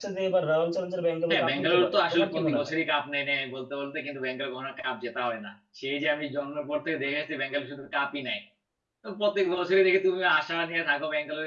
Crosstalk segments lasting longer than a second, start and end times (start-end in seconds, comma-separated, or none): 1.3-2.7